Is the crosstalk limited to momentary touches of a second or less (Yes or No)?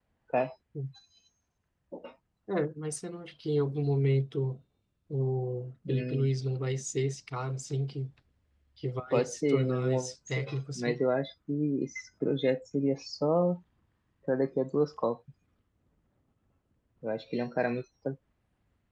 No